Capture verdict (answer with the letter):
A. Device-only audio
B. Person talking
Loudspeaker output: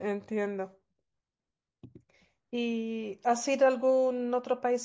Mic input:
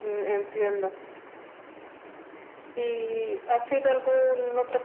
A